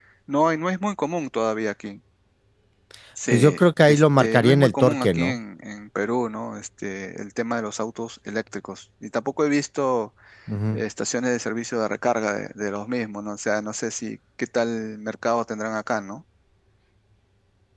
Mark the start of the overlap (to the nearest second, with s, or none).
3 s